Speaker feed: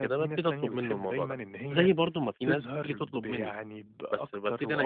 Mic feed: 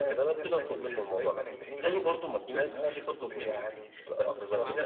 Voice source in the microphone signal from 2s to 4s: both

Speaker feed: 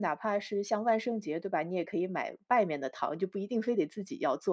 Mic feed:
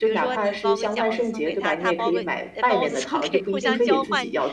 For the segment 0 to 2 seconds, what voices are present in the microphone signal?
both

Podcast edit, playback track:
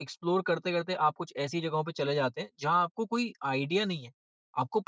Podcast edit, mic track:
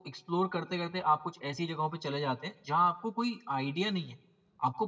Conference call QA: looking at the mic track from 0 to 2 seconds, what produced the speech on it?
echo only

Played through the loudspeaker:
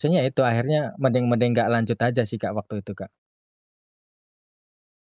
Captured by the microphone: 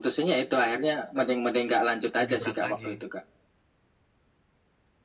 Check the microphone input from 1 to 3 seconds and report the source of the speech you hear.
both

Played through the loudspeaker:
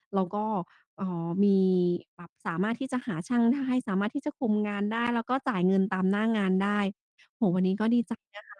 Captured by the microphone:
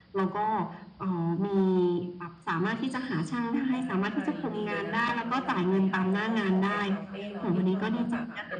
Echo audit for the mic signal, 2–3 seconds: echo only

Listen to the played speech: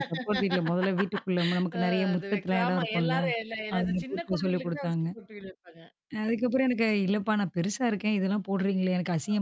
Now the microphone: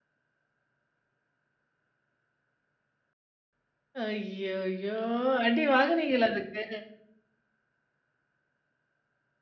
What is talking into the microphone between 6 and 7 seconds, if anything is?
user only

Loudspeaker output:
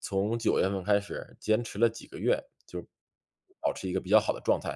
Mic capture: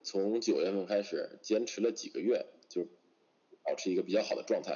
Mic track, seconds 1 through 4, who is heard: echo only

